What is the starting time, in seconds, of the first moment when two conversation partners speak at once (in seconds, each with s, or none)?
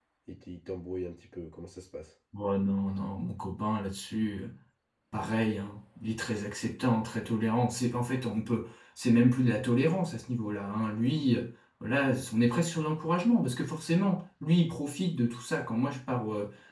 none